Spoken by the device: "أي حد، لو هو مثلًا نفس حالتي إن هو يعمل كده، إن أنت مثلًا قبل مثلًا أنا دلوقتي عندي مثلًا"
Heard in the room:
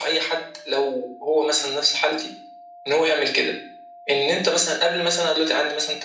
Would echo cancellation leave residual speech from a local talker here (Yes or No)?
No